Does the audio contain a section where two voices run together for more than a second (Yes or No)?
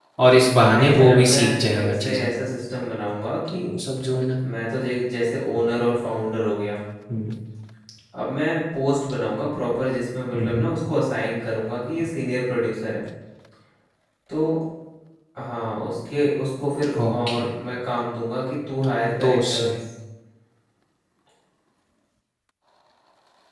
Yes